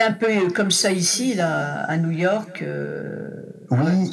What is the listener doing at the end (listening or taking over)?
taking over